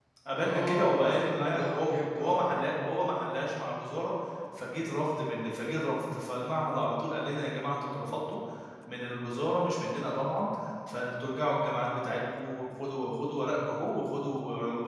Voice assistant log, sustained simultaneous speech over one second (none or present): present